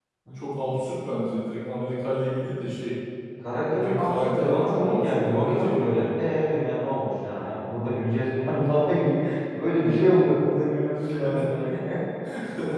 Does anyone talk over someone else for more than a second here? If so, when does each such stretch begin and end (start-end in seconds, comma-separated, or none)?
3.6-6.3